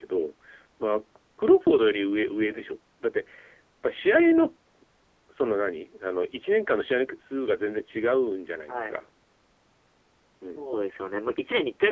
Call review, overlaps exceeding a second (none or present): none